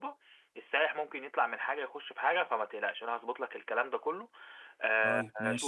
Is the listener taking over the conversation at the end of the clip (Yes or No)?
No